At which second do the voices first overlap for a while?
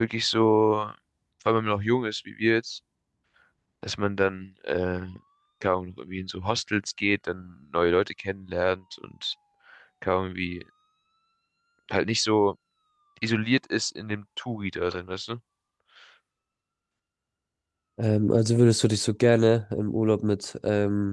none

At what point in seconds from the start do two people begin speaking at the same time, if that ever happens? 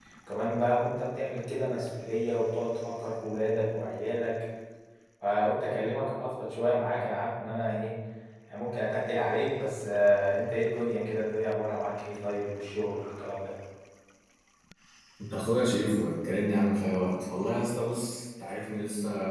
none

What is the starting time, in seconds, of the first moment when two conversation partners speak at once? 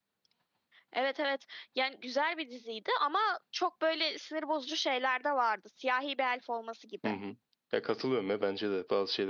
none

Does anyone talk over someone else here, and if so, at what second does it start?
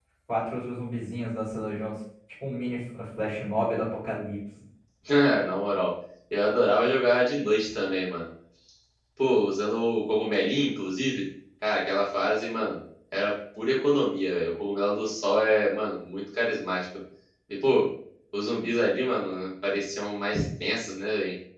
none

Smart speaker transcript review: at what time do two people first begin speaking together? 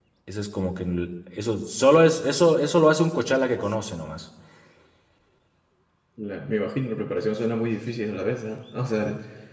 none

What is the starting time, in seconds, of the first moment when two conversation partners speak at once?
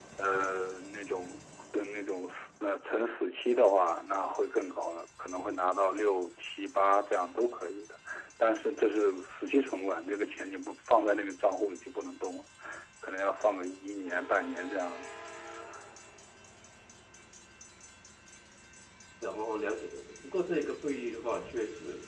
none

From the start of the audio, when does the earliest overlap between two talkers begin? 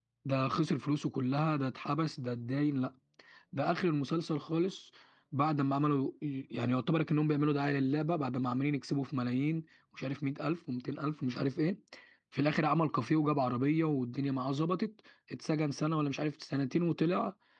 none

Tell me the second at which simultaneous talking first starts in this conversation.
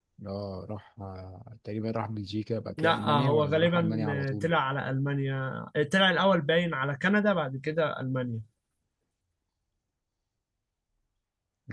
3 s

